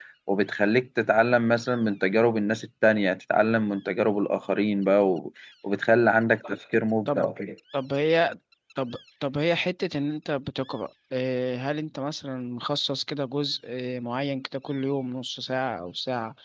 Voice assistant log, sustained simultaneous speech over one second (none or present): none